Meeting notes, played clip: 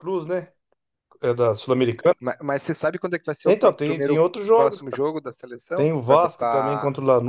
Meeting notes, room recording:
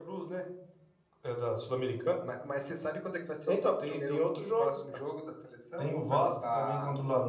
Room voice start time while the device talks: none

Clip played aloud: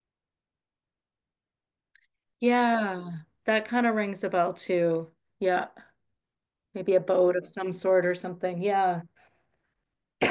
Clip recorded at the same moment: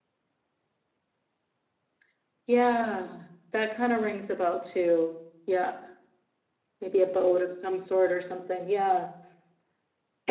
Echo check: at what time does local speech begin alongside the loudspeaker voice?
none

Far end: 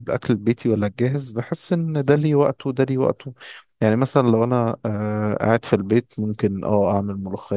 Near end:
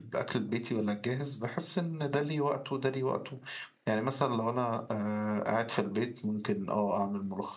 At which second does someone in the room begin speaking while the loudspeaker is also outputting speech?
none

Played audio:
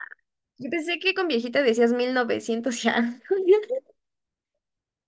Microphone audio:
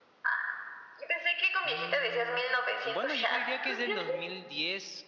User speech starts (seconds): 1.6 s

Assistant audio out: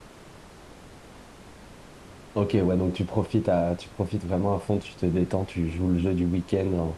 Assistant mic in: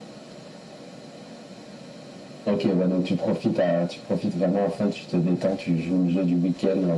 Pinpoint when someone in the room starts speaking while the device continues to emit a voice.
none

